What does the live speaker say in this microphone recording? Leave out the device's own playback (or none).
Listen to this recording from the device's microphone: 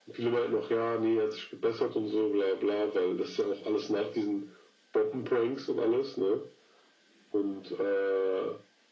none